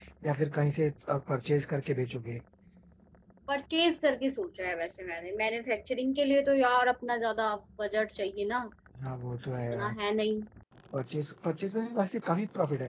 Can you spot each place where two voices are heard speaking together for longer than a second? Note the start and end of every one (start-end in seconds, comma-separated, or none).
none